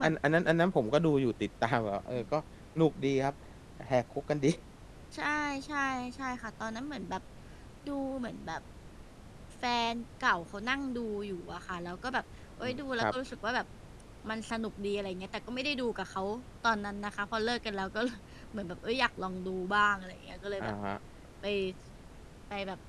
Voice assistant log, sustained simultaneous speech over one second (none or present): none